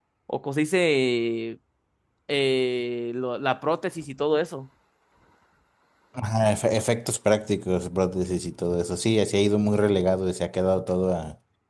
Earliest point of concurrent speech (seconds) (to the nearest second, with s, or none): none